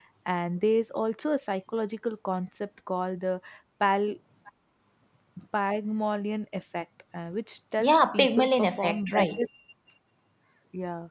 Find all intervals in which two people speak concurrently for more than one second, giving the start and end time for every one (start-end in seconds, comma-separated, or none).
7.8-9.4